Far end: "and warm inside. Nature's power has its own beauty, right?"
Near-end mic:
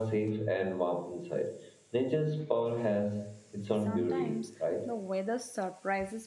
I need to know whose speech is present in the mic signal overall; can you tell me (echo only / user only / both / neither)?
both